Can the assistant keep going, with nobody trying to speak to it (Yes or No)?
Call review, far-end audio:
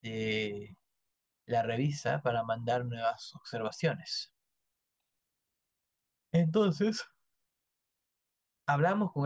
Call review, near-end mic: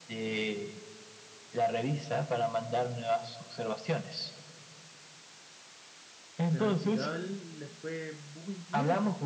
No